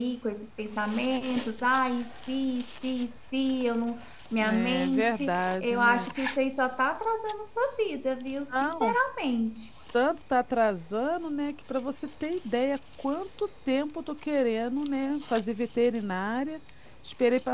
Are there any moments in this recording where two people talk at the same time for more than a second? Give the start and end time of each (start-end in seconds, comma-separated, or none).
4.5-6.1